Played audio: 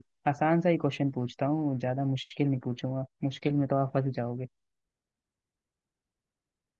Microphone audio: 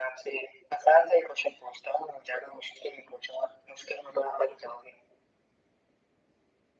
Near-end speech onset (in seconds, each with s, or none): none